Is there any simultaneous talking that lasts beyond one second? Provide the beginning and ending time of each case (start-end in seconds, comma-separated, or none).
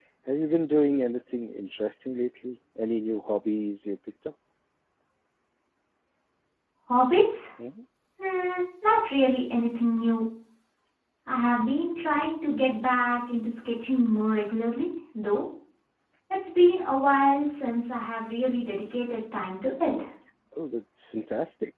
none